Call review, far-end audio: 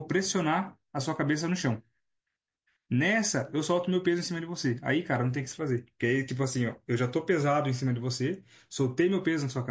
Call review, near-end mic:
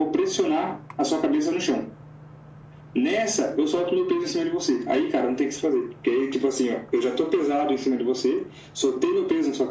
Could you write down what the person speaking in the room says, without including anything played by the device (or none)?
none